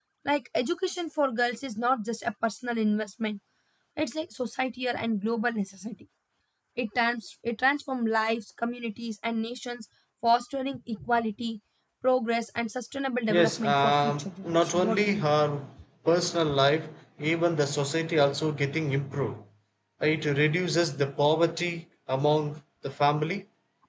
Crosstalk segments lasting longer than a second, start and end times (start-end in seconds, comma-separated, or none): 13.3-15.2